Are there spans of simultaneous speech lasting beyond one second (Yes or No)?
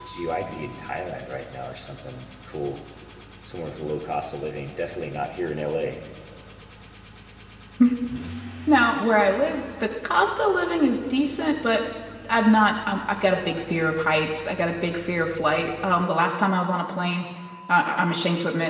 No